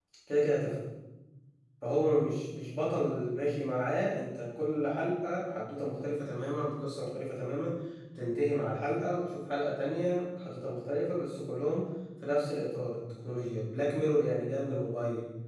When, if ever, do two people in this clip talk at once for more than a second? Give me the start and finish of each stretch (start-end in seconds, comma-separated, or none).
none